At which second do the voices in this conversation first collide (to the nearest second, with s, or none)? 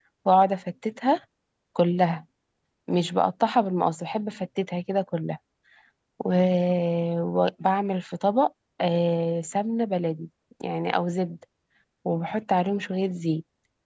none